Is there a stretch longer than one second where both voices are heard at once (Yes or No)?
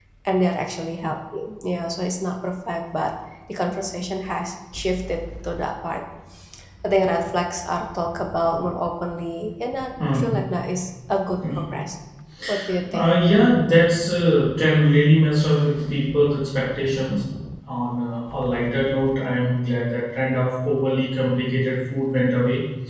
No